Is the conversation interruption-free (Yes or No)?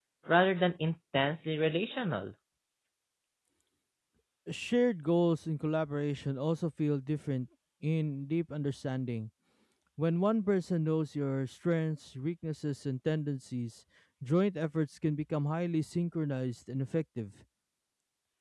Yes